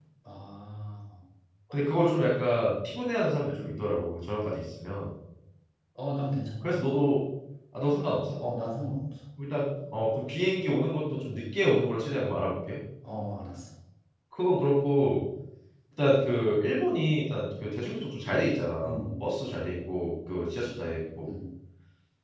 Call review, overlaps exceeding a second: none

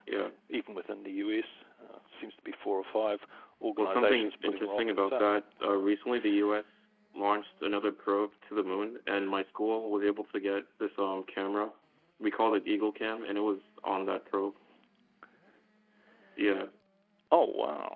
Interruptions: present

